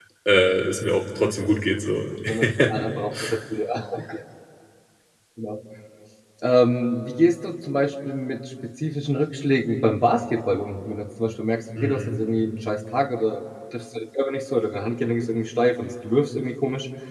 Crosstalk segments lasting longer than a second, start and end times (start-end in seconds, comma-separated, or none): none